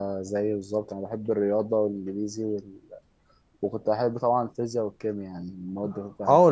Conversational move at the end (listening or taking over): taking over